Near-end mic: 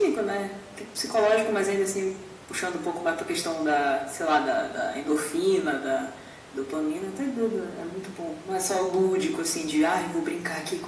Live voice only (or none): none